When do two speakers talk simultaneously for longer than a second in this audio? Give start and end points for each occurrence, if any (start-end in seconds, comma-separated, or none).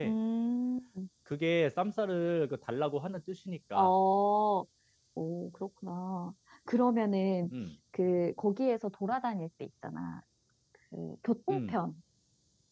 none